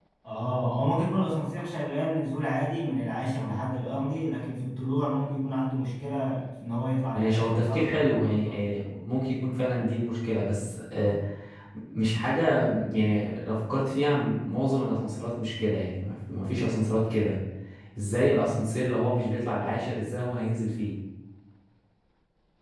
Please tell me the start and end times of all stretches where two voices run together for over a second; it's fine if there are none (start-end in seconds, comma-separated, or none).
7.1-8.6